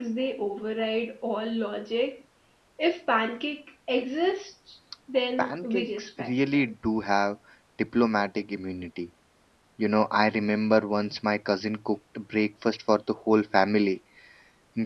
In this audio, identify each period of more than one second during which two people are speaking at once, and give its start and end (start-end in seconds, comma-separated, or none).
5.4-6.7